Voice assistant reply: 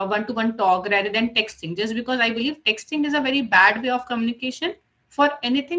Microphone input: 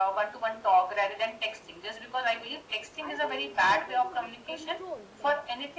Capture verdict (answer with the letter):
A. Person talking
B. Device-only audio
A